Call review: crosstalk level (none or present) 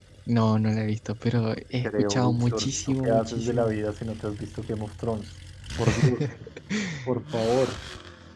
present